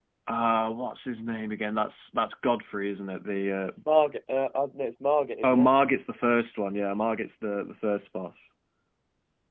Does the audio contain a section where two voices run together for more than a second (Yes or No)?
No